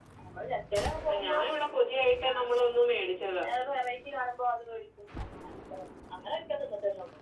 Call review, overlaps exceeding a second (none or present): none